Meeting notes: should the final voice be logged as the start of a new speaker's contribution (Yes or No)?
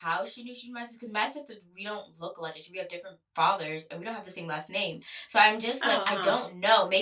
No